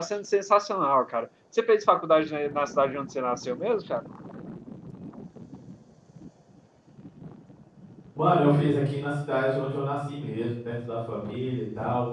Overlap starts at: none

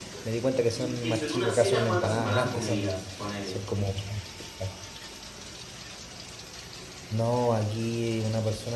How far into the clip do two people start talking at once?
0.7 s

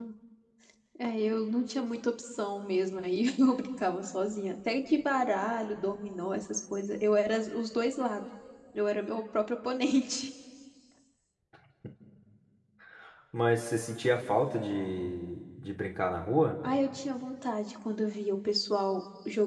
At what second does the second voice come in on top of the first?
none

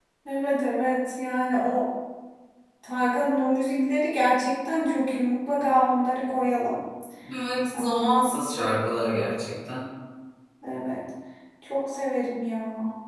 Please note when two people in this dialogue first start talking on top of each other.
none

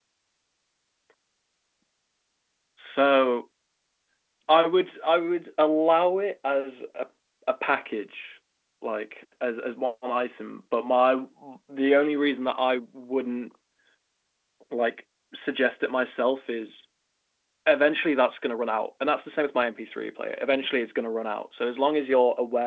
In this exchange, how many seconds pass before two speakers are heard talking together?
none

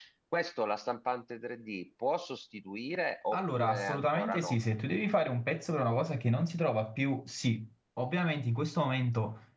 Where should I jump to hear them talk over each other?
3.3 s

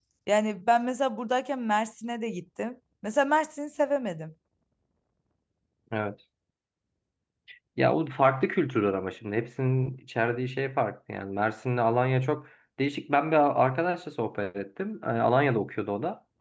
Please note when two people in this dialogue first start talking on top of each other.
none

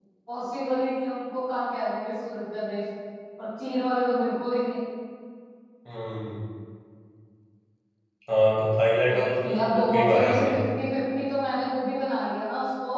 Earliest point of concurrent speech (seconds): 9.1 s

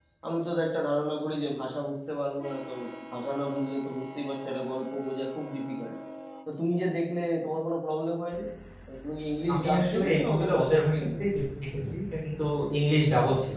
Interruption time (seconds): 9.5 s

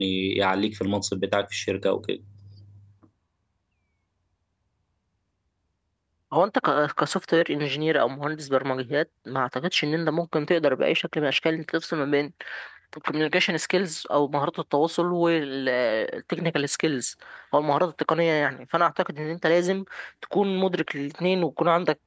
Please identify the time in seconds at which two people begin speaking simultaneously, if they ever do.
none

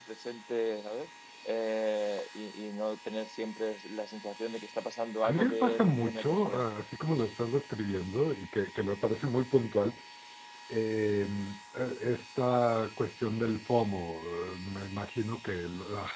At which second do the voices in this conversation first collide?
5.2 s

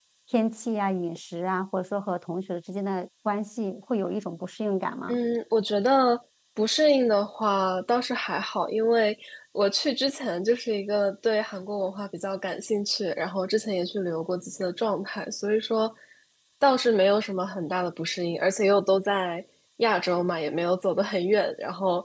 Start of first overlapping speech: none

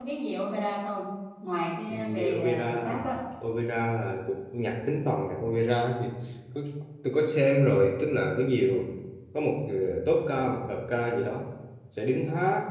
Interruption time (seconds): 1.9 s

